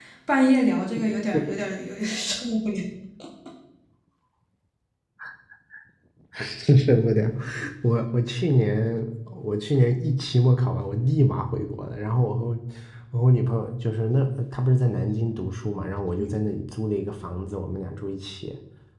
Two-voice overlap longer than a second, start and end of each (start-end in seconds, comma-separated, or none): none